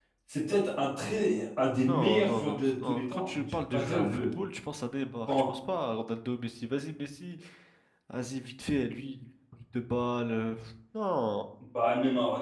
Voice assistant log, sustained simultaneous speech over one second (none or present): present